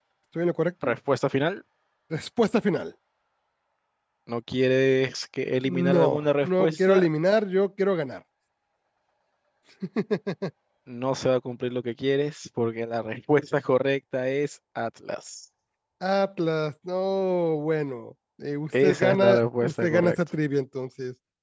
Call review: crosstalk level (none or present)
present